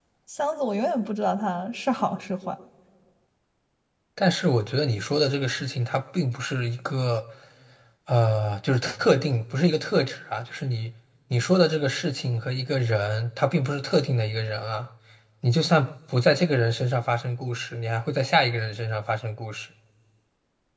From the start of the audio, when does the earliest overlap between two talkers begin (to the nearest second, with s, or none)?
none